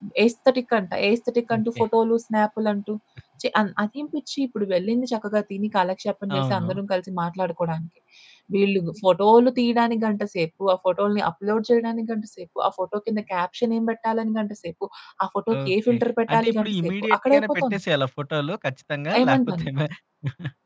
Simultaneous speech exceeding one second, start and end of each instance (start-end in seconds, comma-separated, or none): 16.3-17.8